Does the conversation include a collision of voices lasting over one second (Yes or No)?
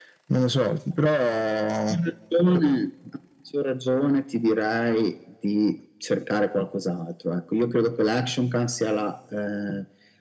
No